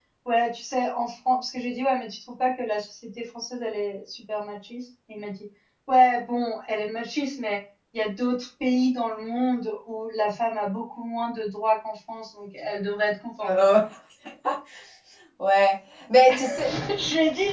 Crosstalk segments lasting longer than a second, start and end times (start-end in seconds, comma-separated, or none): none